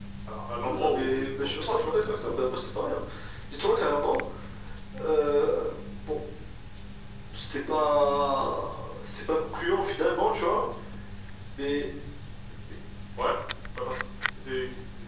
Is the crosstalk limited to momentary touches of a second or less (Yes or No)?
No